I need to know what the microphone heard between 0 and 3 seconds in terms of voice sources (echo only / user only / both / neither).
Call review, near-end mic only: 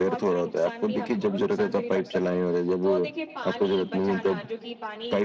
both